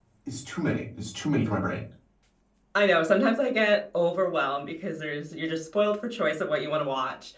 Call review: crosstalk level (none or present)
none